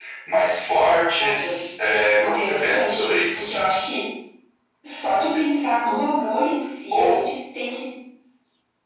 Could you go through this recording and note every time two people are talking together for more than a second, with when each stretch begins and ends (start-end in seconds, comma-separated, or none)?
2.2-3.5